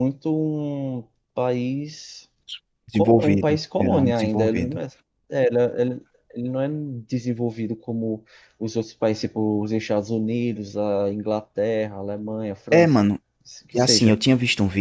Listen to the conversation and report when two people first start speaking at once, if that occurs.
3.0 s

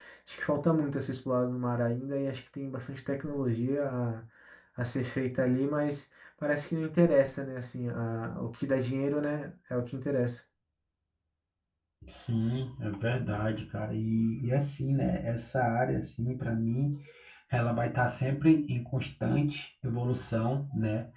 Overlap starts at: none

